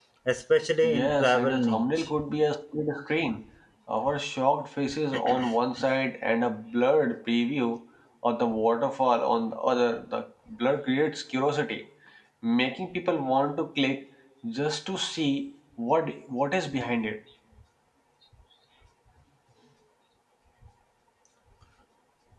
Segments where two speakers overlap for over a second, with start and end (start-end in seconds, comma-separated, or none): 0.8-2.1